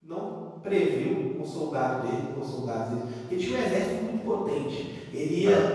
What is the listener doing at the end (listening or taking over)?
listening